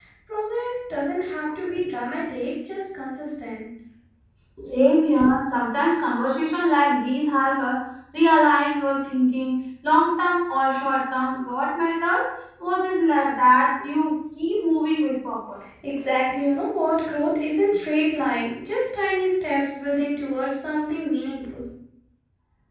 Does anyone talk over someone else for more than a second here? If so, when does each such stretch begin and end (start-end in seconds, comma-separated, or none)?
none